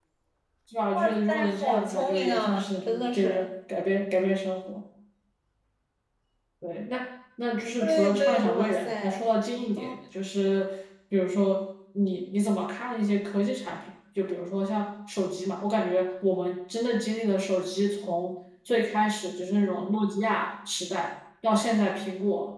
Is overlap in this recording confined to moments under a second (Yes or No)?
No